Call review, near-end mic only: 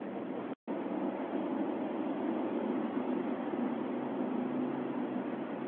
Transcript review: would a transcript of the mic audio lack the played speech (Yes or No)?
Yes